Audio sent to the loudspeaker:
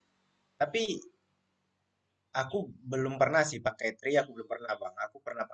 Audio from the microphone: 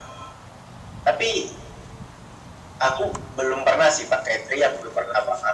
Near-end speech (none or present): none